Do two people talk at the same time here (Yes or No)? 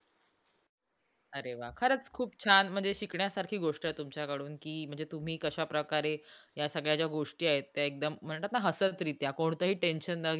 No